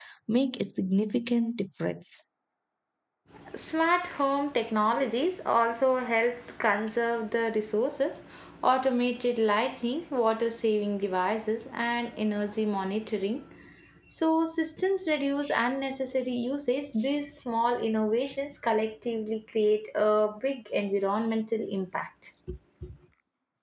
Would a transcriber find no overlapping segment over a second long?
Yes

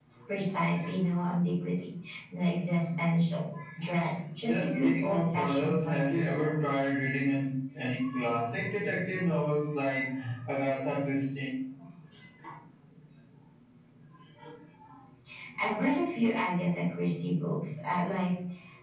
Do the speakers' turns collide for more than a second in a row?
Yes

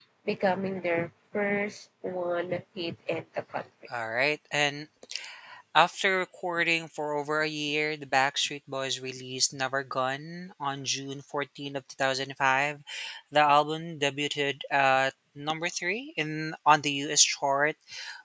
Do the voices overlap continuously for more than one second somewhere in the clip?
No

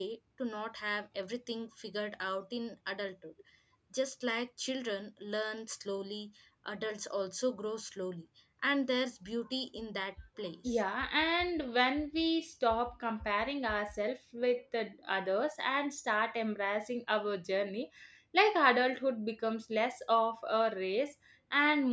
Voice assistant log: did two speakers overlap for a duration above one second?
No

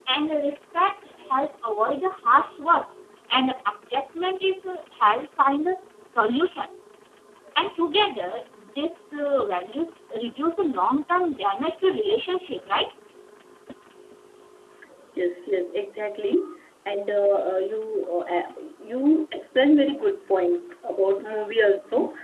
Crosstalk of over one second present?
No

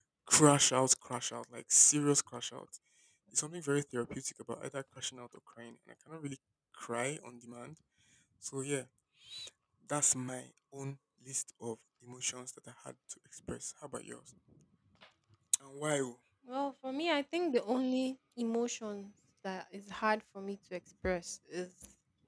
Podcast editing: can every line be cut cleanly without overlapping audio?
Yes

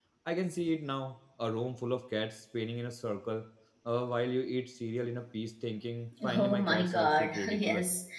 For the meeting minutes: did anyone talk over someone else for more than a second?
Yes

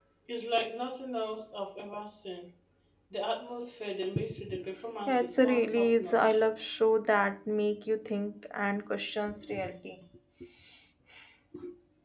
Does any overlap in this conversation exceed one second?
Yes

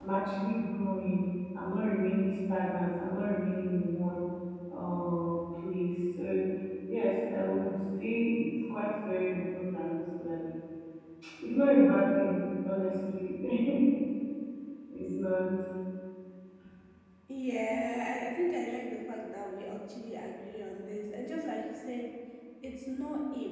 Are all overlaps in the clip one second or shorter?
Yes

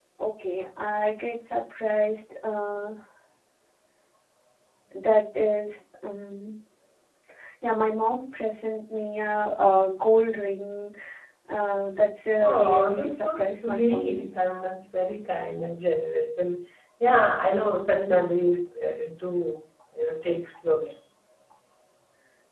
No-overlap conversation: No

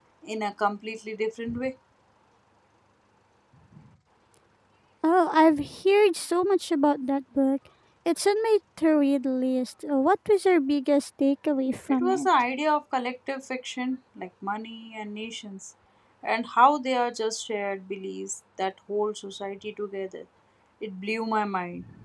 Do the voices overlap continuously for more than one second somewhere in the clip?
No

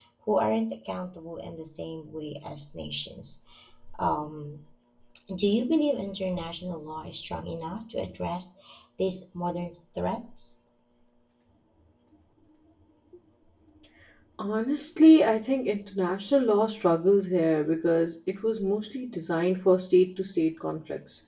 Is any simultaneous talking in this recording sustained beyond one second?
No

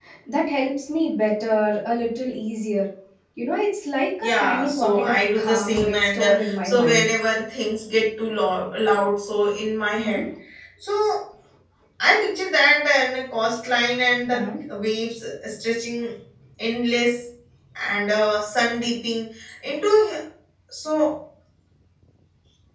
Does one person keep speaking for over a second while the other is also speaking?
Yes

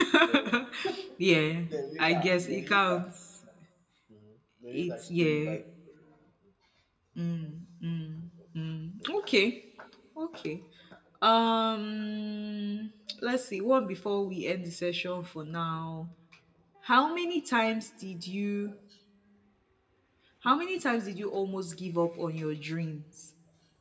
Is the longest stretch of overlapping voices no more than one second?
No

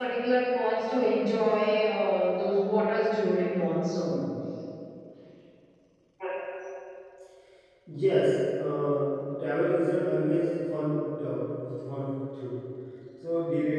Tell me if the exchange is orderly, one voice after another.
Yes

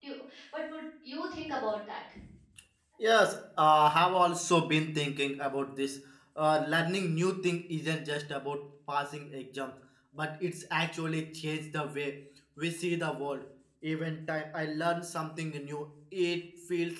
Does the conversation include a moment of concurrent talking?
No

